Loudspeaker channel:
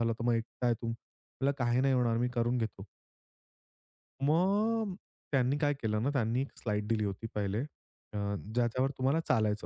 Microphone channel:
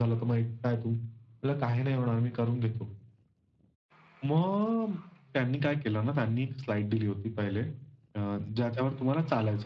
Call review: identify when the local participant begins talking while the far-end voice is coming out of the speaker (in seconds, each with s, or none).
none